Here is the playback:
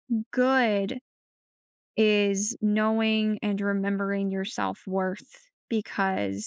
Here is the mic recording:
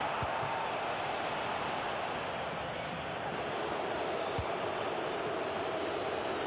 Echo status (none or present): none